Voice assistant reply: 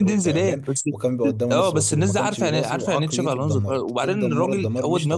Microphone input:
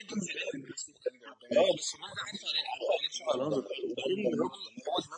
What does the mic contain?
echo only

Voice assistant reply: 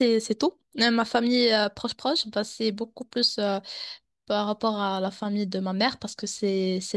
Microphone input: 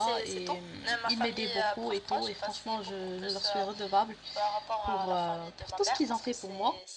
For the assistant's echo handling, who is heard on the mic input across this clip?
both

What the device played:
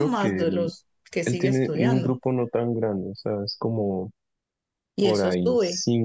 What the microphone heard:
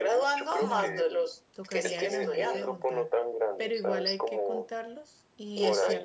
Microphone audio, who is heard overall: both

